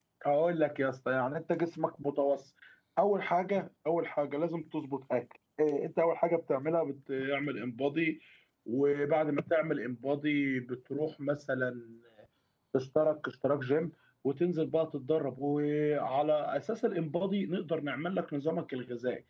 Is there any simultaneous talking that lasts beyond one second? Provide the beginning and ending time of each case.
none

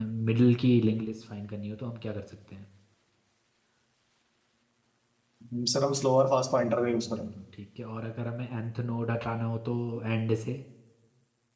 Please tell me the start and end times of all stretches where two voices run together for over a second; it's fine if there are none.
none

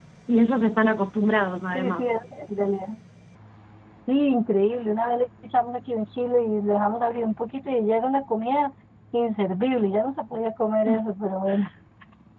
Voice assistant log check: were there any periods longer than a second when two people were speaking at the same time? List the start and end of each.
none

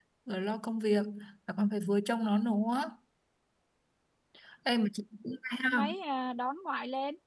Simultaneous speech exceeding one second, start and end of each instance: none

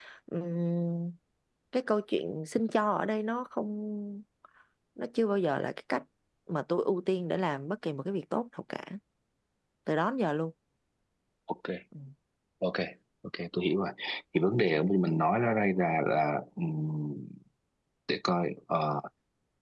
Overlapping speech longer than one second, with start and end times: none

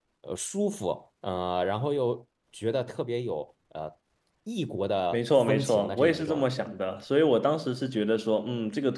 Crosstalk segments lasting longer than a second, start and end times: 5.1-6.5

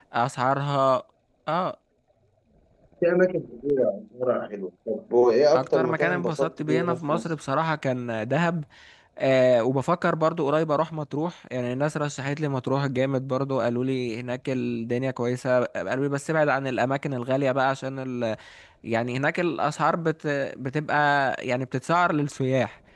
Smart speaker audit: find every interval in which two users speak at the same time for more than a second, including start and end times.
5.5-7.2

